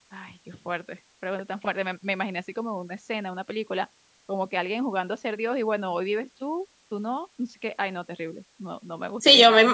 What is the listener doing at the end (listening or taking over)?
taking over